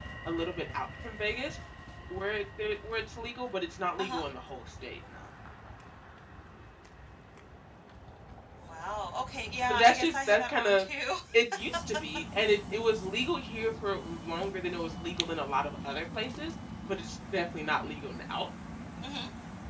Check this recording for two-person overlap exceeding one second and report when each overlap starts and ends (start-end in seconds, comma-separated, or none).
9.7-10.9